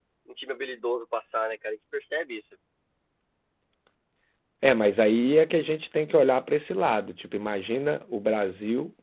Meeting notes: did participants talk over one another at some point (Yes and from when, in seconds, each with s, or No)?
No